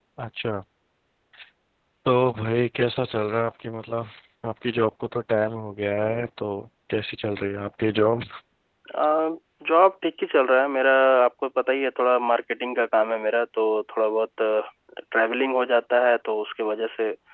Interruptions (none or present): none